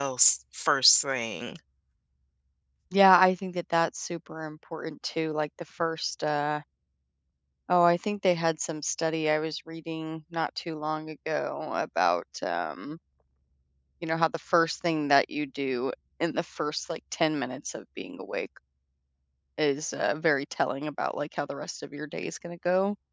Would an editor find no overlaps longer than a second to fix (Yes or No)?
Yes